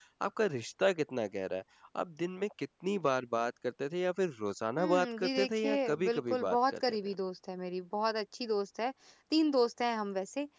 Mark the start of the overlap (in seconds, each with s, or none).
4.8 s